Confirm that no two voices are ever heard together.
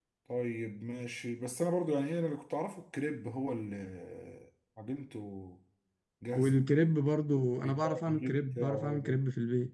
No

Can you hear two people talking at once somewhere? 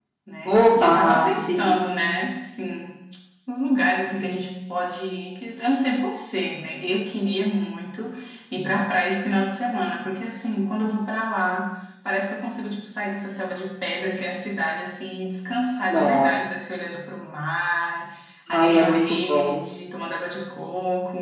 Yes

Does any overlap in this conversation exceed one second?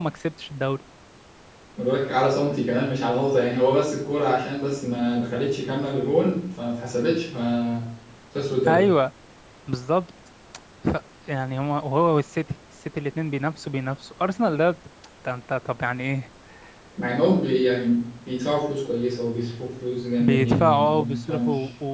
Yes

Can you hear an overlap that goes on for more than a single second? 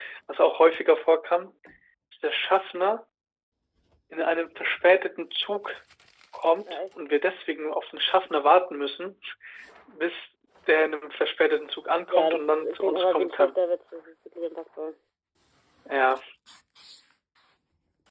Yes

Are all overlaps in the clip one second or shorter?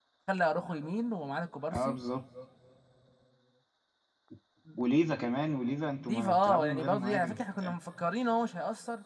No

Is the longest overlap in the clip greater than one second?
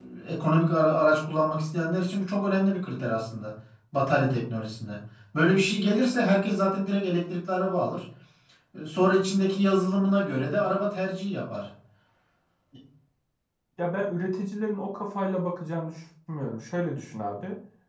No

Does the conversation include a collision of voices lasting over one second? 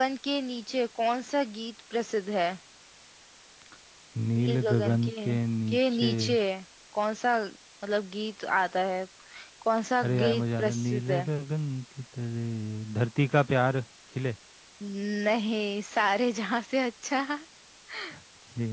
Yes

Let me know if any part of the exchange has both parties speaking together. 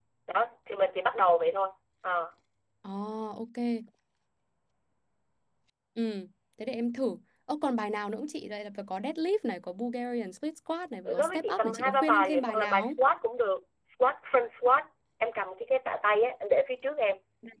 Yes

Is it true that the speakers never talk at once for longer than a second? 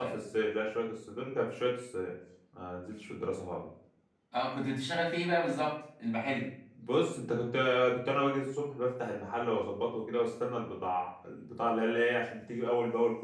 Yes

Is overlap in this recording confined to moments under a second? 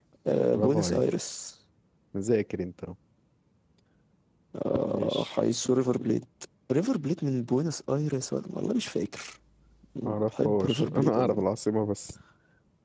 No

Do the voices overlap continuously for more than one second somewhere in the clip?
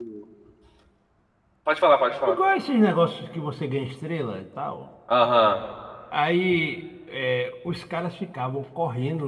No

